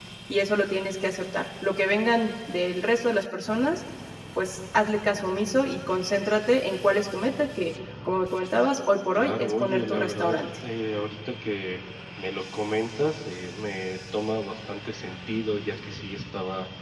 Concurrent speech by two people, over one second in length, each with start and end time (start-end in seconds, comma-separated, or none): 9.2-10.4